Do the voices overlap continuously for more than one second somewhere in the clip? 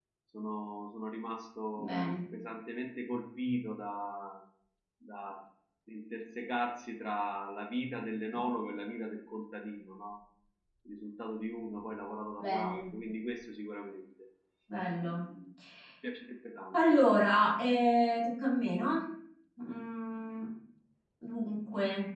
No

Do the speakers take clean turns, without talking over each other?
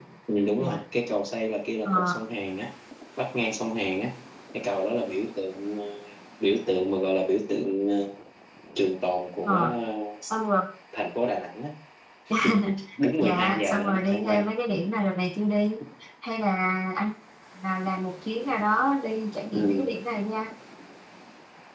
No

